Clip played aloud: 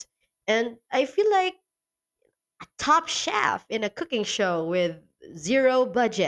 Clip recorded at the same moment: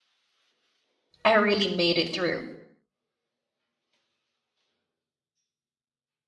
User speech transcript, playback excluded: I really made it through?

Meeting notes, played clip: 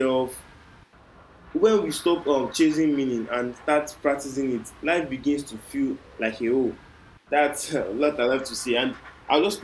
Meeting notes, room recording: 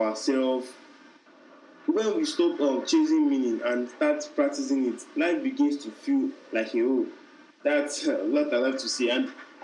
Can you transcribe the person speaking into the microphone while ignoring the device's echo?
none

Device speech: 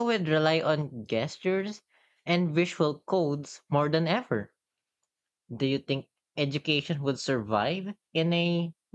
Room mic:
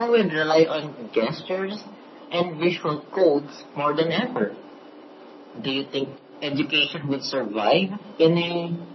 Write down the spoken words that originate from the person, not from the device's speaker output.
none

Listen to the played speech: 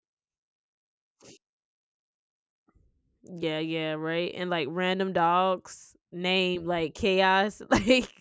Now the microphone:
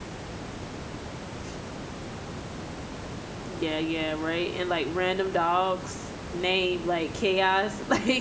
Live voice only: none

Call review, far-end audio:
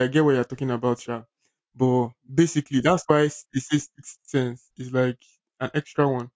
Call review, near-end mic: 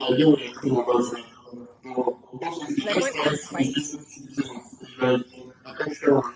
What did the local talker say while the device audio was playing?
It's like when ants bite you

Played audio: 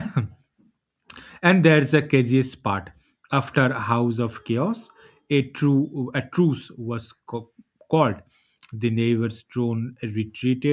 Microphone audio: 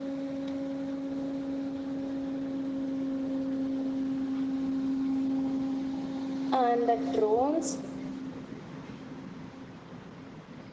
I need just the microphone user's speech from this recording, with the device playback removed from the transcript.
and the drones

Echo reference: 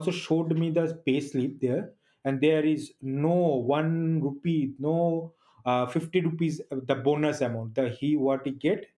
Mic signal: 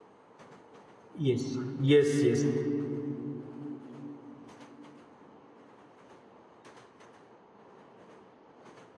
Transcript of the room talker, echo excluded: Yes. Yes. Yes.

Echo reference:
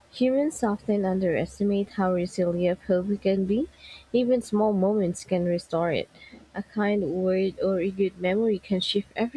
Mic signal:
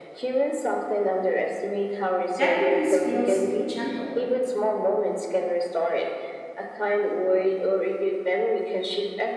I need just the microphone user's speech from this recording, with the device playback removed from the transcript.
That release feels gentle.

